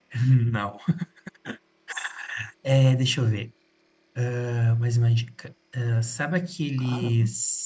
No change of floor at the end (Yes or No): Yes